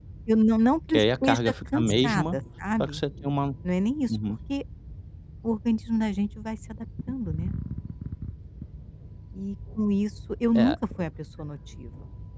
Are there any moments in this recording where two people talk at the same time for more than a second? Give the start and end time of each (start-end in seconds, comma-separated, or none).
0.9-2.3